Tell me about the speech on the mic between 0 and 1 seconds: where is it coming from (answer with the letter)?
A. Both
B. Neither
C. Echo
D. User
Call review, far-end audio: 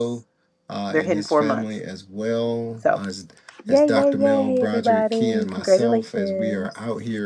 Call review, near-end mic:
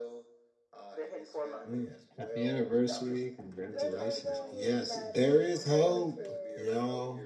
C